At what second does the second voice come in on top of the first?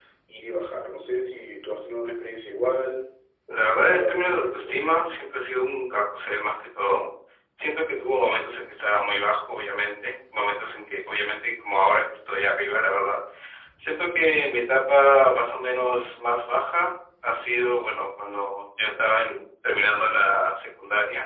3.5 s

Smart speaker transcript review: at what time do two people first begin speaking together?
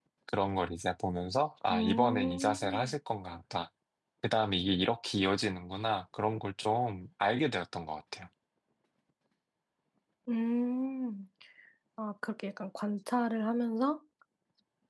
1.7 s

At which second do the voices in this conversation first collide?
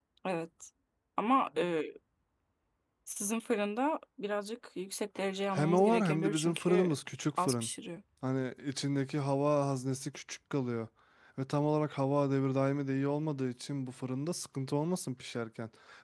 5.5 s

